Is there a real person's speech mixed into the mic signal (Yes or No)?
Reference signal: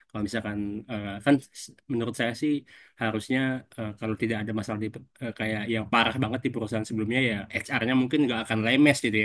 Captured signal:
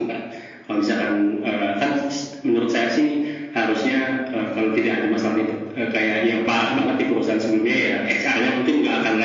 No